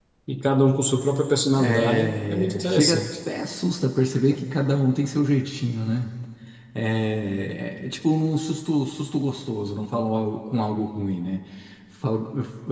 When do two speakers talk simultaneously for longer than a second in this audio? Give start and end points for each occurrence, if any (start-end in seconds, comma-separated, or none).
1.6-3.1